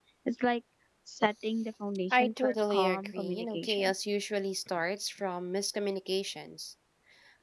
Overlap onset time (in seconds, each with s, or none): 2.1 s